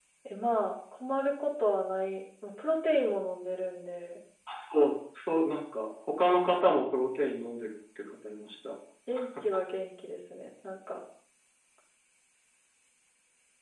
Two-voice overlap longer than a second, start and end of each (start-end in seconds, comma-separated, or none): none